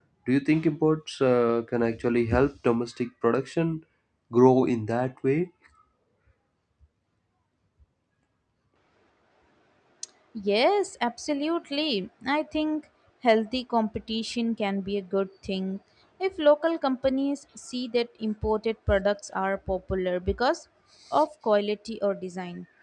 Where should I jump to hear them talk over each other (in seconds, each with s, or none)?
none